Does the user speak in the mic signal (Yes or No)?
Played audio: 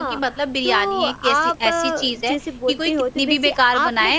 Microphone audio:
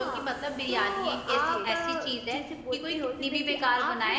Yes